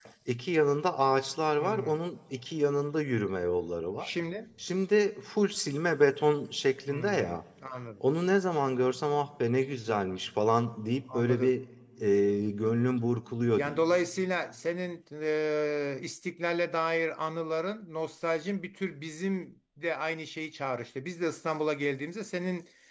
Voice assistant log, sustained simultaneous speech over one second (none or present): none